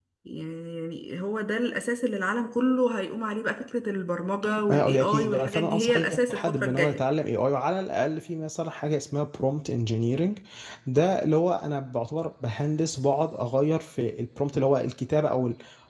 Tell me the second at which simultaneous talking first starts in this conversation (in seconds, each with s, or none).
4.4 s